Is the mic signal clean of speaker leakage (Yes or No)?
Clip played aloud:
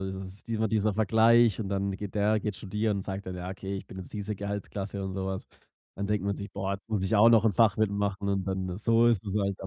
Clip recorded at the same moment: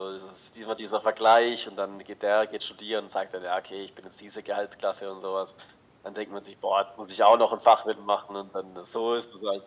No